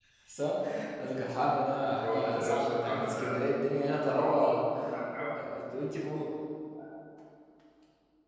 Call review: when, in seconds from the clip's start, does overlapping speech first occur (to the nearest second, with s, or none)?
2 s